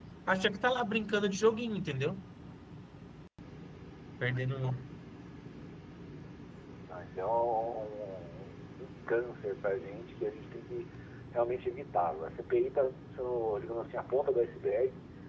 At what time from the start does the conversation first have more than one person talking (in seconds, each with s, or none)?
none